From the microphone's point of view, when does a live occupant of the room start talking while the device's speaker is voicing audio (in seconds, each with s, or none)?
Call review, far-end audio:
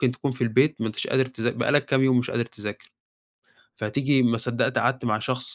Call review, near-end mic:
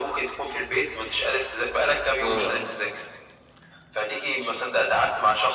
2.2 s